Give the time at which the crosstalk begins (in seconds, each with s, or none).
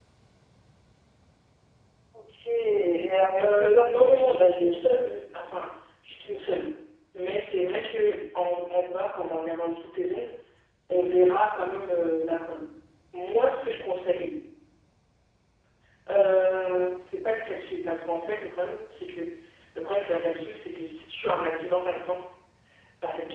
3.4 s